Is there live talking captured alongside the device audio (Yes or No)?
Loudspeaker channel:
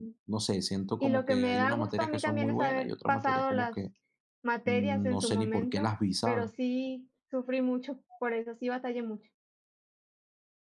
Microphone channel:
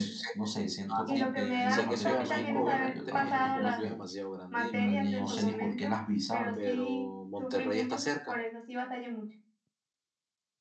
Yes